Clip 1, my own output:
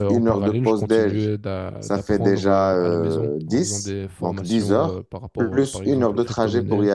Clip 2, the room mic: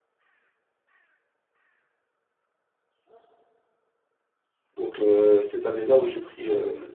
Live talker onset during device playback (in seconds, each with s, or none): 4.7 s